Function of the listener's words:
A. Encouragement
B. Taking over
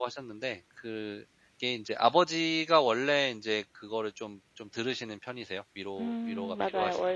B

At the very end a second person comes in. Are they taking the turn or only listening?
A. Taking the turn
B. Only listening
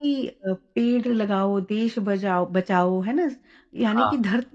B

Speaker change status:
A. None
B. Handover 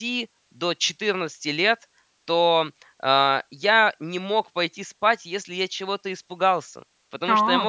A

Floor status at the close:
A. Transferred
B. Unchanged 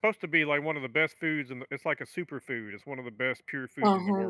A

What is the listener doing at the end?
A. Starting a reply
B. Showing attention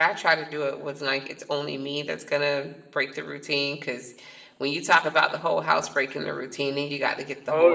B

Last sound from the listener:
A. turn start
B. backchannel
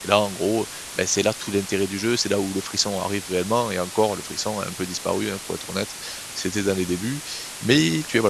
B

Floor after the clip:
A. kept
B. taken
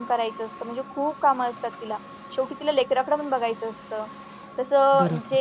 A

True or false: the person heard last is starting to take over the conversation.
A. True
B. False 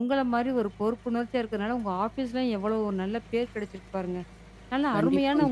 B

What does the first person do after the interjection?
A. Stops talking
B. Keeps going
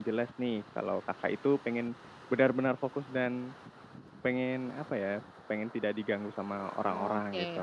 A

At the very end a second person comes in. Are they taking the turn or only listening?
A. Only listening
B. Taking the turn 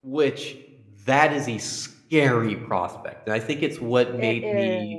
A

